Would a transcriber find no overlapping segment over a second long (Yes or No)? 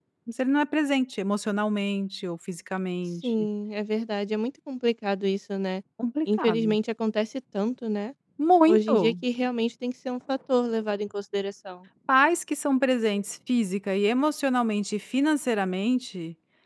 Yes